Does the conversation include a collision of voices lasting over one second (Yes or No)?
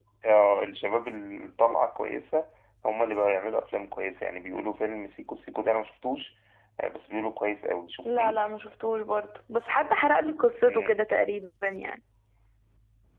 No